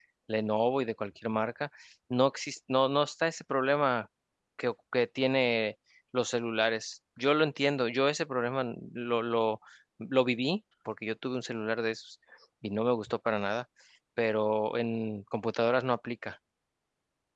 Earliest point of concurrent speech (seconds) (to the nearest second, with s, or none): none